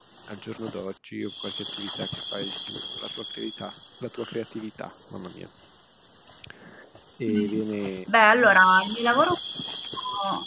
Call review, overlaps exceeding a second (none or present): none